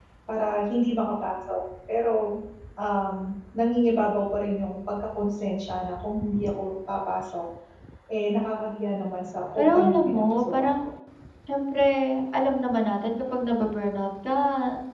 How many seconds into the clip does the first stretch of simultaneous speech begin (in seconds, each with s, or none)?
9.6 s